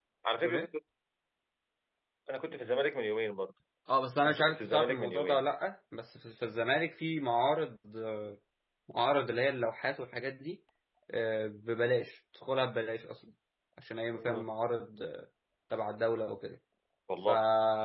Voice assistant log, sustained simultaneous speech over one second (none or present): present